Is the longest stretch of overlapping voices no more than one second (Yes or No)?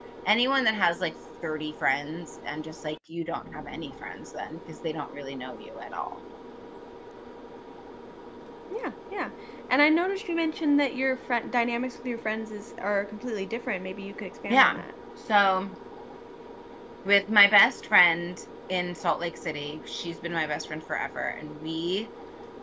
Yes